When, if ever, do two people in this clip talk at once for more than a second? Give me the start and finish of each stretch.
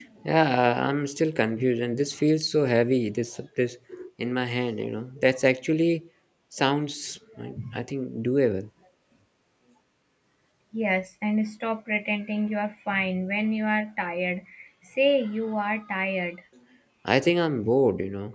none

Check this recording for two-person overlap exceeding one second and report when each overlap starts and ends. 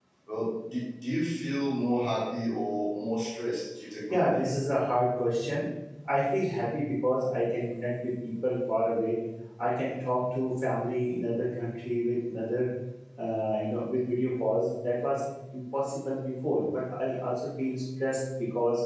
none

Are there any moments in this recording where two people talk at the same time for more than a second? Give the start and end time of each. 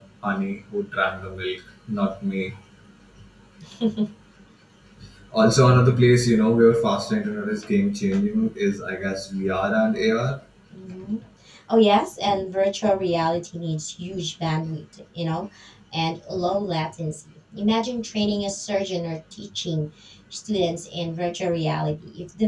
none

